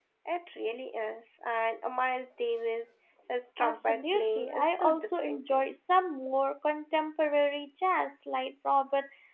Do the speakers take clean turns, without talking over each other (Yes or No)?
No